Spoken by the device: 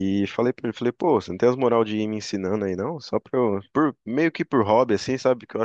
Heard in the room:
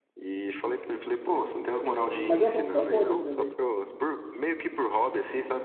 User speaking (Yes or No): Yes